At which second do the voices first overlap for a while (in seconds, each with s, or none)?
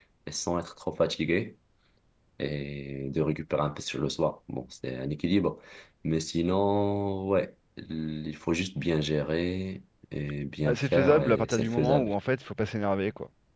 10.6 s